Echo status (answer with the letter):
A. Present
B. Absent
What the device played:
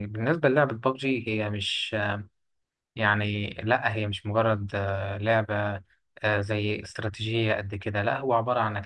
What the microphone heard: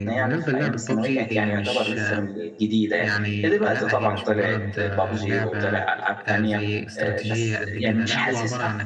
A